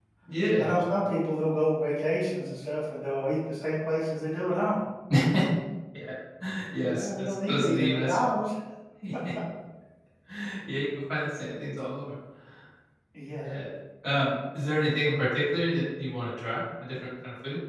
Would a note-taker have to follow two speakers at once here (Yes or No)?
Yes